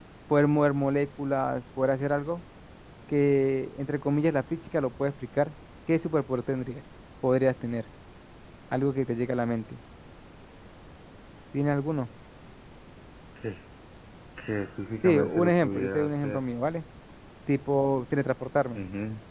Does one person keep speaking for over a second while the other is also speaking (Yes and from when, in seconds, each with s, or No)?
Yes, from 15.0 s